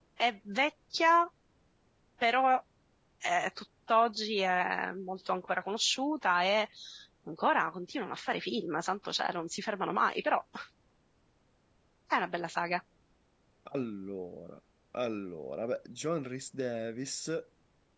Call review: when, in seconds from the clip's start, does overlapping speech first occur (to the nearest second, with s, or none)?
none